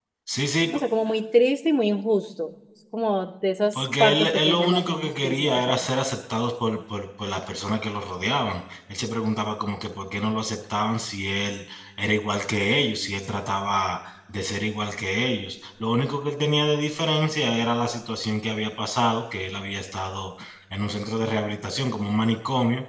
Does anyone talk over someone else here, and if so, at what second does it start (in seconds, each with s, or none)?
3.7 s